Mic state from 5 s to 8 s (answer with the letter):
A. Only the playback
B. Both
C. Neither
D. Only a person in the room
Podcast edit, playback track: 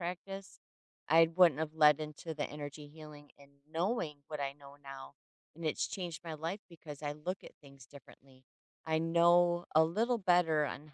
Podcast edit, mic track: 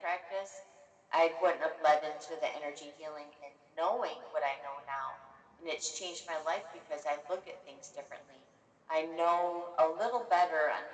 A